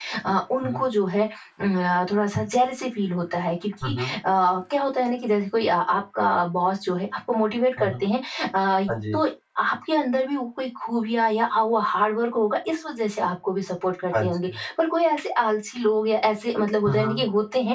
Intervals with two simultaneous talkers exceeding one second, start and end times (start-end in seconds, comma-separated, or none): none